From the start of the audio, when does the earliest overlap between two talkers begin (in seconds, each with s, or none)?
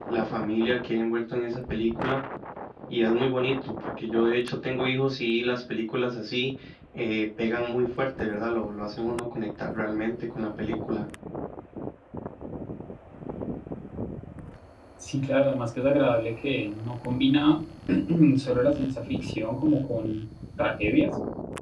none